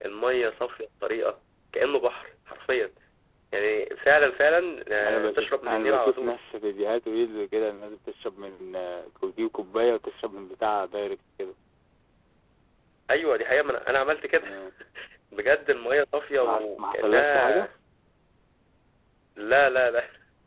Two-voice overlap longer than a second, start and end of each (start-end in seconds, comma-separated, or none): 5.0-6.3, 16.4-17.7